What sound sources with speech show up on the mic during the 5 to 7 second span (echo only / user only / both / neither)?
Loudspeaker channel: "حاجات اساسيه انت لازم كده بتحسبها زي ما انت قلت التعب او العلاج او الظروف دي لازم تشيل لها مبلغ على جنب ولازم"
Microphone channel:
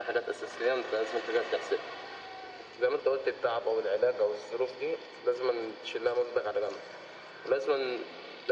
echo only